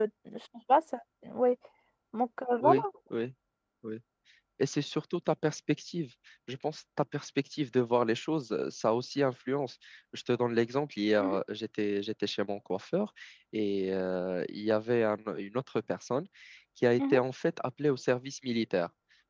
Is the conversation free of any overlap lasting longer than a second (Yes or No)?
Yes